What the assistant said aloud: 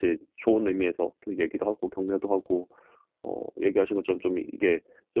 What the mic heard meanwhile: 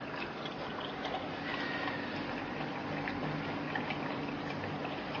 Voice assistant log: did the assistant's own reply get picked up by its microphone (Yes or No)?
No